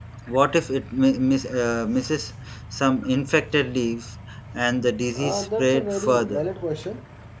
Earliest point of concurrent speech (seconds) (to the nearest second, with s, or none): 5 s